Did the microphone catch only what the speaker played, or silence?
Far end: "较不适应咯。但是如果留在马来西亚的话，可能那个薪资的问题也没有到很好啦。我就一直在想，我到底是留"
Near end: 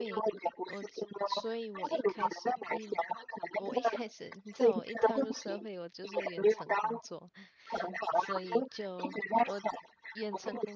No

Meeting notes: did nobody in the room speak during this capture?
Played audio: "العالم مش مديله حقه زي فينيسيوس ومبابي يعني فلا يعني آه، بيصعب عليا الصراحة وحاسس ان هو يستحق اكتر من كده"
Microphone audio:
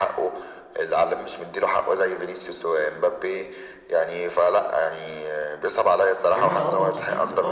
No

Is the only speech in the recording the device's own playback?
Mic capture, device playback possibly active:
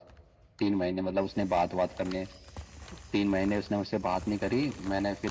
Yes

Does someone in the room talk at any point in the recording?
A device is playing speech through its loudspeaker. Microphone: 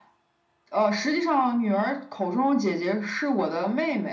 No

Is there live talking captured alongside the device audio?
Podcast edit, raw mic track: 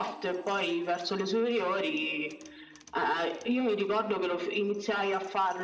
No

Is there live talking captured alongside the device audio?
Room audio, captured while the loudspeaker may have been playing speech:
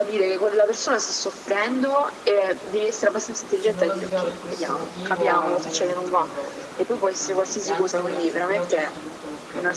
Yes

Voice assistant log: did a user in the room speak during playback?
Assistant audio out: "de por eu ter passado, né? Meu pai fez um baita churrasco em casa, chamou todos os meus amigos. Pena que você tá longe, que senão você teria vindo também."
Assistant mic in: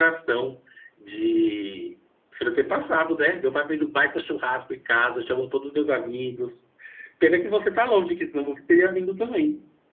No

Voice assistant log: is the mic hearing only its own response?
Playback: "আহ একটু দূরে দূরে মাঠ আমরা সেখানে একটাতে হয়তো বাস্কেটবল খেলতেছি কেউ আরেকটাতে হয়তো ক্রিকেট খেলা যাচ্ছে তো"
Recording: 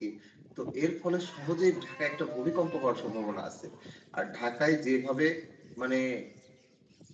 No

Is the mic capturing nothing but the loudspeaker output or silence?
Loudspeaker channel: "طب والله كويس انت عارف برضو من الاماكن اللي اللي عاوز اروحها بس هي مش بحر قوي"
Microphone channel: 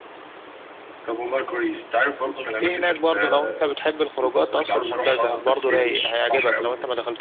No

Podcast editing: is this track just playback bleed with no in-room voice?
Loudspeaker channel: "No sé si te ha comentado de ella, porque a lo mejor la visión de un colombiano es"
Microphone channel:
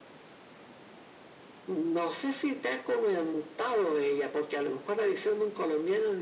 Yes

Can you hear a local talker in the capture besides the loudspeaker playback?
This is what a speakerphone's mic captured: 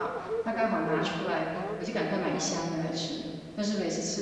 Yes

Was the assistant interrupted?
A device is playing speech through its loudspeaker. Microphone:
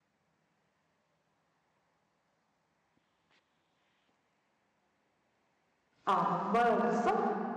Yes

